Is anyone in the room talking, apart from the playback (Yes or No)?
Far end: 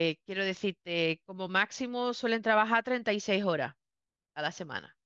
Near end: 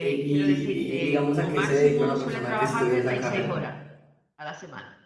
Yes